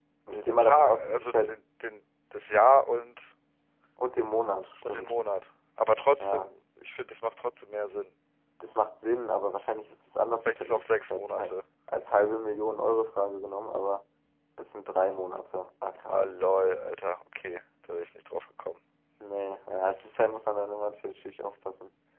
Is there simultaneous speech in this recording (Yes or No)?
Yes